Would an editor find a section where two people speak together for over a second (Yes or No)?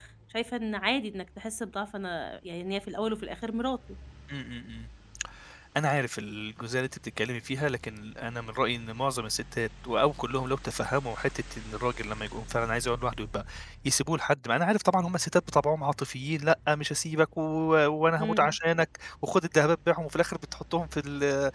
No